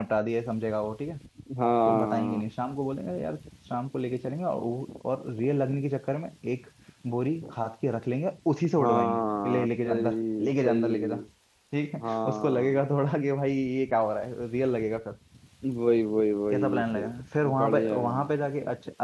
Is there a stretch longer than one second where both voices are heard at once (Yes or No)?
Yes